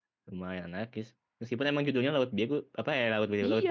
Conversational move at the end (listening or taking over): taking over